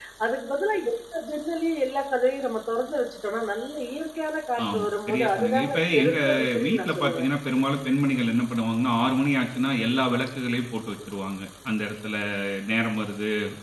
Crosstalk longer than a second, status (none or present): present